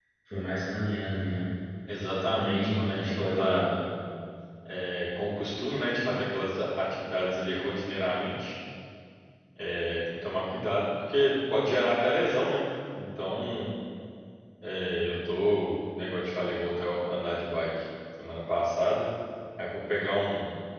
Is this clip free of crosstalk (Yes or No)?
No